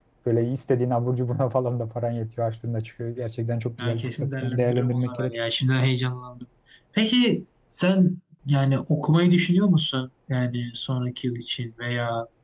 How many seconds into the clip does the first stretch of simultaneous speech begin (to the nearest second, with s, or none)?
4 s